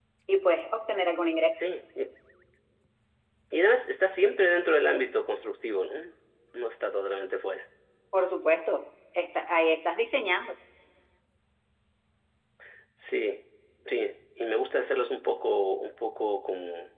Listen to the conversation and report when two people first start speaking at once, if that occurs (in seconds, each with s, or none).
none